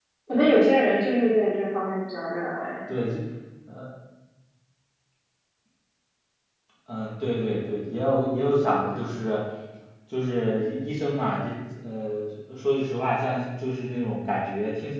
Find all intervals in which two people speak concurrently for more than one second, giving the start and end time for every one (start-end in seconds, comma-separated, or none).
none